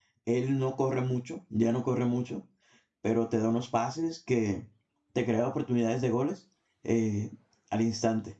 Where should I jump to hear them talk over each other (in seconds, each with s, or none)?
none